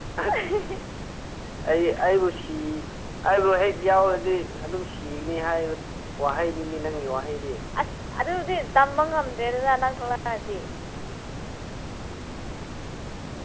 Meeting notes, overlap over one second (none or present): none